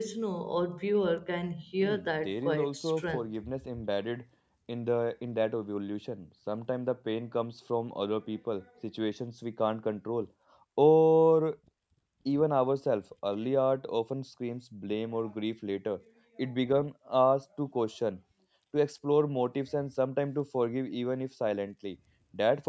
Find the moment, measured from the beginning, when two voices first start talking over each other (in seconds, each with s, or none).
1.8 s